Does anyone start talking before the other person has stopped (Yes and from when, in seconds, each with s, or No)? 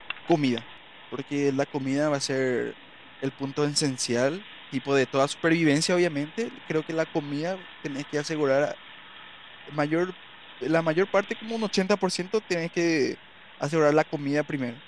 No